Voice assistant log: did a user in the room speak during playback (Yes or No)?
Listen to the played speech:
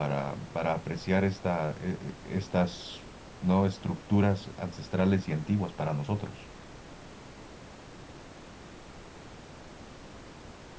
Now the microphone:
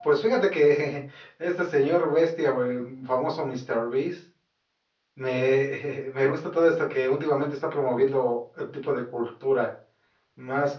Yes